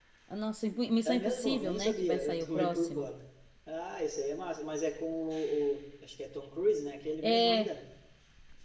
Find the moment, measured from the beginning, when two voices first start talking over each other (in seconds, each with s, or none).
1.0 s